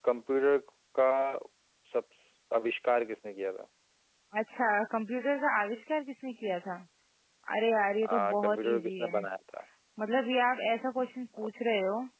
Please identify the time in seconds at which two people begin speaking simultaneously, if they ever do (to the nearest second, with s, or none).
8 s